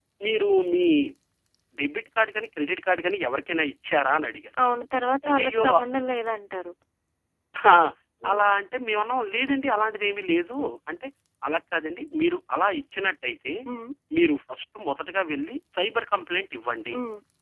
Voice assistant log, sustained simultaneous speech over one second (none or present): none